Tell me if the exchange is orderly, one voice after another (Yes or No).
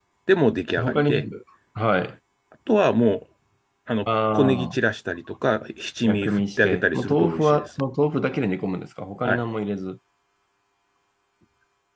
No